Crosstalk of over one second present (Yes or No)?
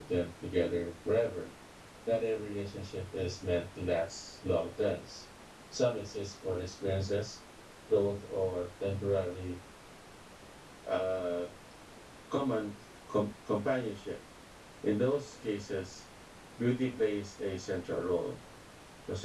No